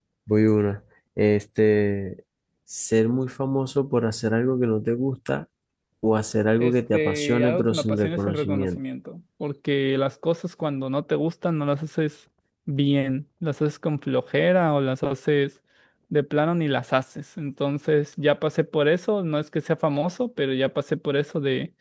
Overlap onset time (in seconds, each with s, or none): 6.6 s